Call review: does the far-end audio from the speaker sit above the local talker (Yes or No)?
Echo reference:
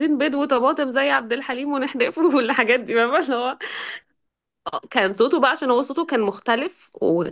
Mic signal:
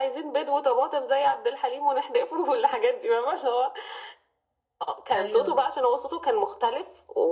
Yes